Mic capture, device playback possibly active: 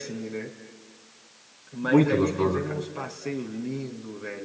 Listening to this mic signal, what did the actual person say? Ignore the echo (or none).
Muito gostoso, cara.